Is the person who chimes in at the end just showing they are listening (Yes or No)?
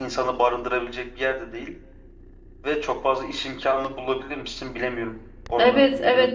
No